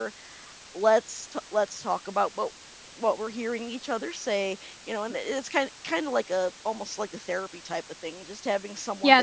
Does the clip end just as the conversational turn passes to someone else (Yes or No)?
Yes